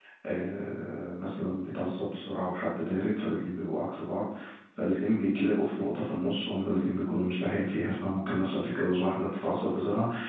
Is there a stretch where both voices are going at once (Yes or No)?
No